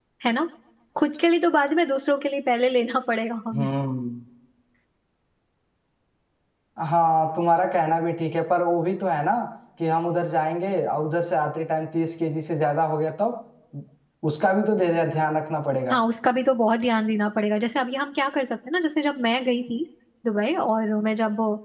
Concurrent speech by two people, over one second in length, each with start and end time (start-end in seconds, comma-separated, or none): none